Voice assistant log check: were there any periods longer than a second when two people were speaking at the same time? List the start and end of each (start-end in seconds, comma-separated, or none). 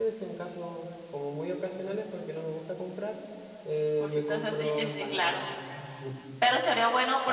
4.0-5.4